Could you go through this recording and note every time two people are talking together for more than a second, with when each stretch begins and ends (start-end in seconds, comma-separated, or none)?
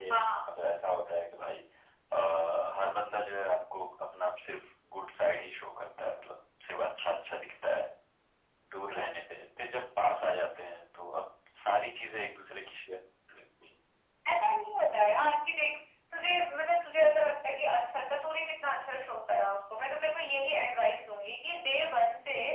none